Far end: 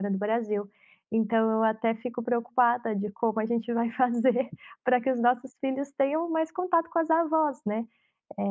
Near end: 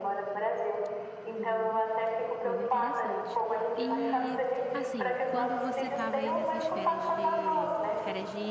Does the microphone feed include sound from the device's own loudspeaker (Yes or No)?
Yes